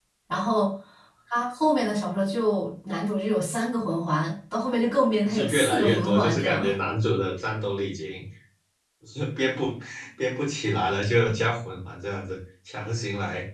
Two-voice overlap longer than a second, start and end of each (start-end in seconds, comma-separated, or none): 5.2-6.6